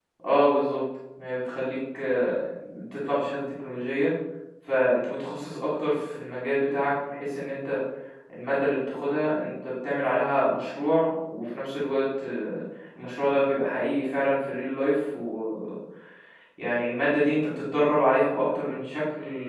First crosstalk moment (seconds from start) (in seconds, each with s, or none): none